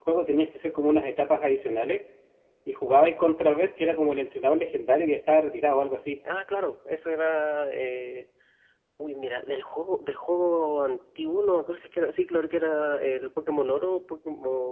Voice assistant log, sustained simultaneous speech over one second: none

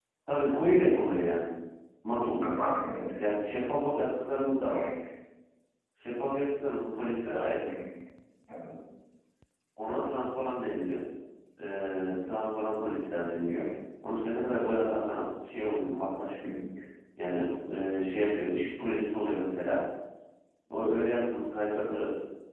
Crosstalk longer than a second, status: none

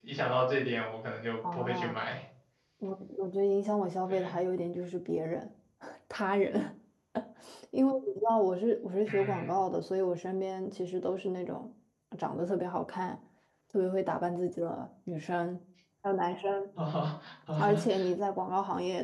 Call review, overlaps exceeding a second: none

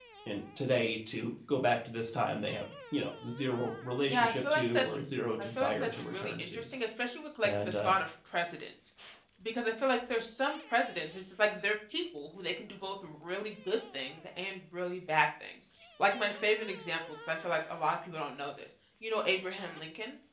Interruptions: present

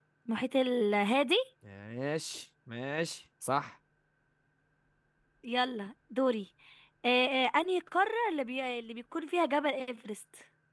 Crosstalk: none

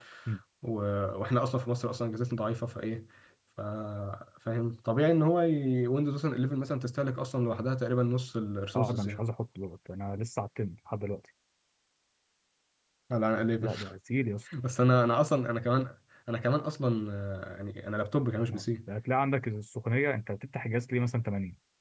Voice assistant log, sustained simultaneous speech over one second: none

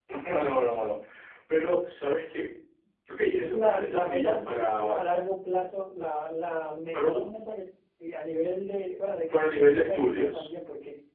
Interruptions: present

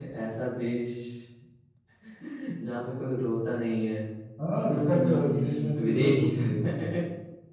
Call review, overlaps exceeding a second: present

